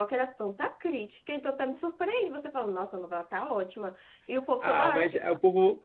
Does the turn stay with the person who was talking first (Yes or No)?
No